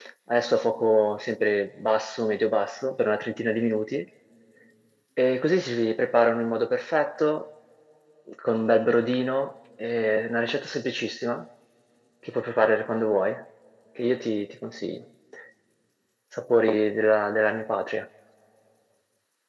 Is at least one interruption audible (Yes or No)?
No